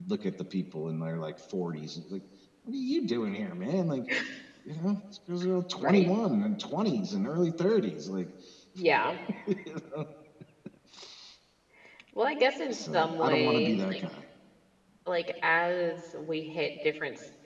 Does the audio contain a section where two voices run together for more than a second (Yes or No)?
Yes